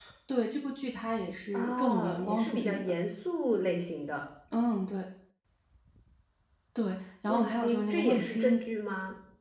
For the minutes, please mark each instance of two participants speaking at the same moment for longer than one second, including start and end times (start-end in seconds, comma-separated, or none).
1.5-2.9, 7.3-8.5